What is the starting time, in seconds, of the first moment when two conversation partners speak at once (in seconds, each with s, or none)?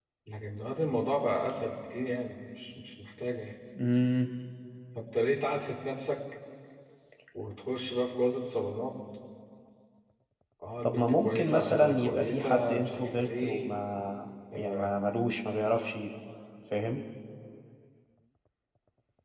10.8 s